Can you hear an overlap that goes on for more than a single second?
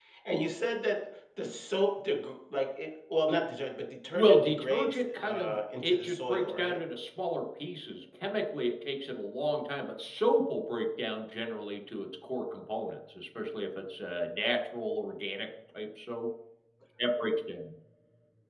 Yes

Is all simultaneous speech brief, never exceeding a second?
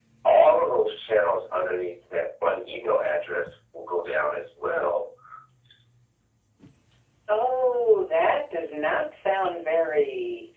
Yes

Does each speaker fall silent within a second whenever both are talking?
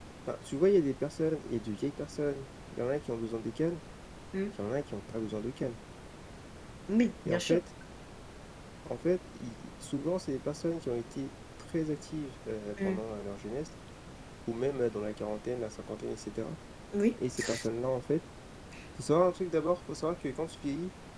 Yes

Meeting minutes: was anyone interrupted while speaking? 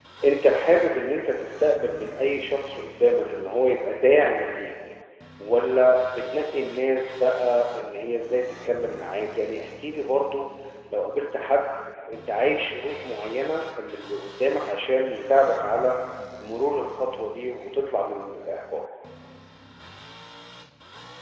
No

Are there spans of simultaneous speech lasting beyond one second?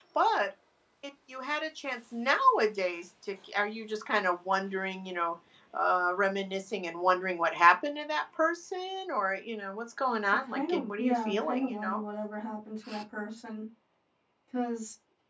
Yes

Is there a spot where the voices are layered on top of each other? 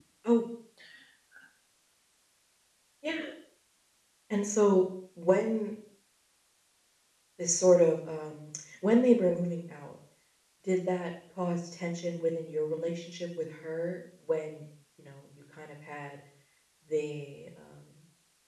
No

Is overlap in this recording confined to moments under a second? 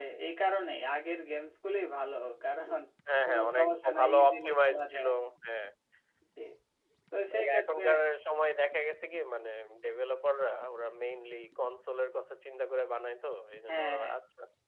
No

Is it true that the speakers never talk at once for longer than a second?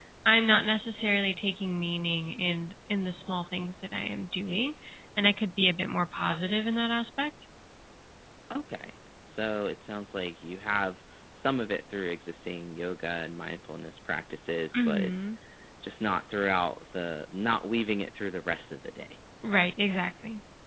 Yes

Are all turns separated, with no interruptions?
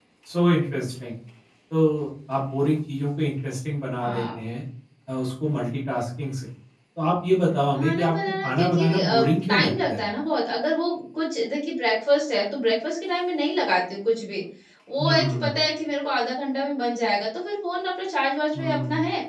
No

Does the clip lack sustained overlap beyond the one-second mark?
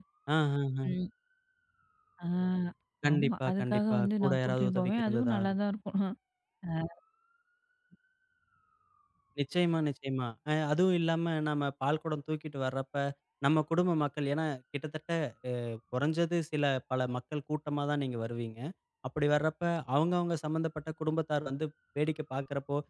No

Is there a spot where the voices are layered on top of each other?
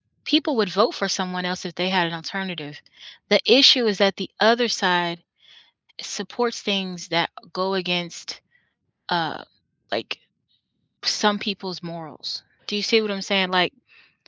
No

